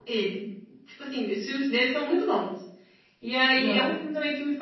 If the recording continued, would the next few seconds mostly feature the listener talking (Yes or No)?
No